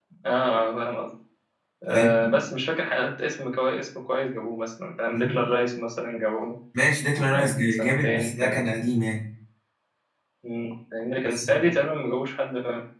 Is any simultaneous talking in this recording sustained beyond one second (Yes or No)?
Yes